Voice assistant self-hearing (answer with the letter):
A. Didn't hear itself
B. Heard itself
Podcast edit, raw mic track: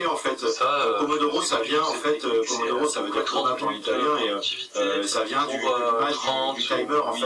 B